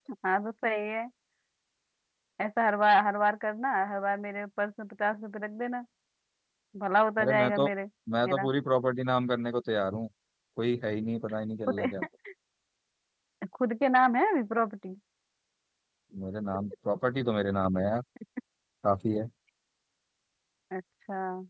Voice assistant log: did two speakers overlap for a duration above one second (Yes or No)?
No